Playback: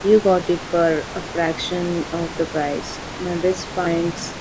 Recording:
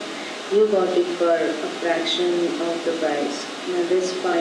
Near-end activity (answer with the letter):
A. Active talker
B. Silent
B